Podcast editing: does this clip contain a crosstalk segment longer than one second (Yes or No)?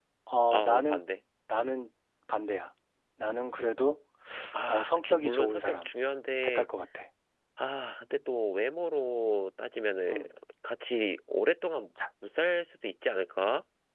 Yes